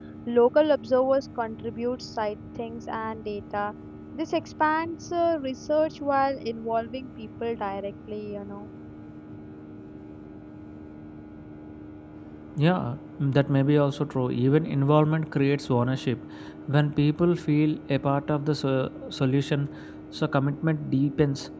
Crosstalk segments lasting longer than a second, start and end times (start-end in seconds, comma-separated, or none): none